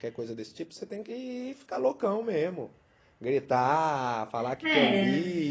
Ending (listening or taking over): listening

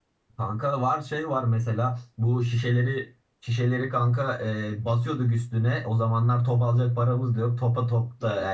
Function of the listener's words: listening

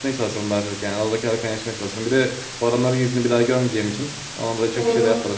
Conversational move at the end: taking over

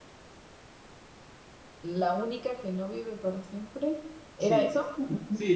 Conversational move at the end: taking over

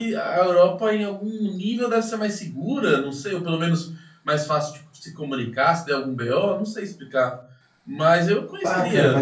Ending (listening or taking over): taking over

